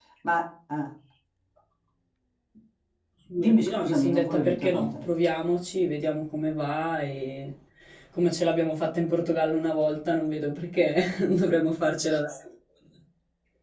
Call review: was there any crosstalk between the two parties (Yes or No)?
Yes